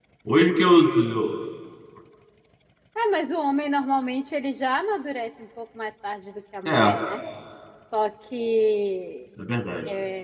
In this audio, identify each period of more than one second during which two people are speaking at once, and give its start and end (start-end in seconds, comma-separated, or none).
none